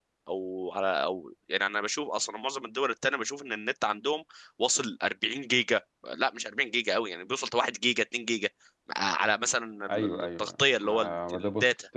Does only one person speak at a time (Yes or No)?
No